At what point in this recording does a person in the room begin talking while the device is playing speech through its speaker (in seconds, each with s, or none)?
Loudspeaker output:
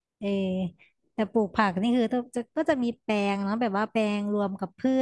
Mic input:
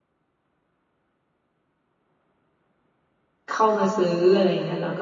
3.5 s